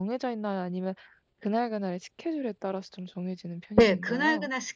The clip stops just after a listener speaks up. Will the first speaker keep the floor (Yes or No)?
No